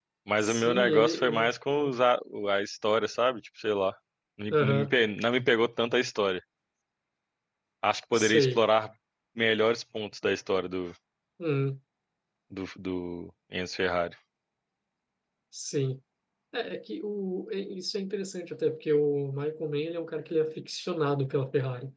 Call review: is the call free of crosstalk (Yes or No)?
No